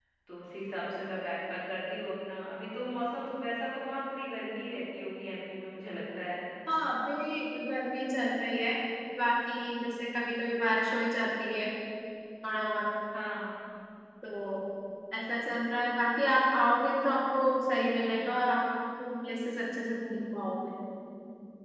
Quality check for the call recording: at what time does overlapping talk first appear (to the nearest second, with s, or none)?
none